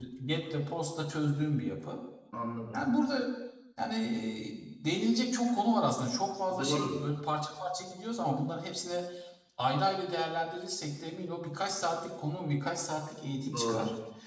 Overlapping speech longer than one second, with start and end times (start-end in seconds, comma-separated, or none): none